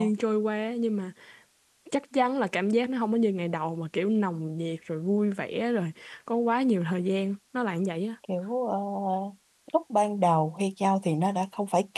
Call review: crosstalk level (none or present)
none